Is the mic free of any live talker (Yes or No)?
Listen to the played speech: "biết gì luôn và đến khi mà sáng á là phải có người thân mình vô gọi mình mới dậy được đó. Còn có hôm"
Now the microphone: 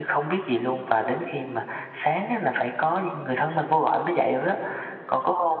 Yes